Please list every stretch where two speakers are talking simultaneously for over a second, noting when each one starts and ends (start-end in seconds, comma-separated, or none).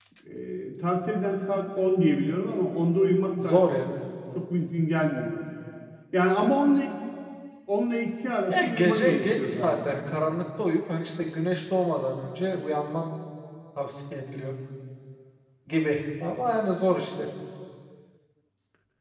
8.5-9.9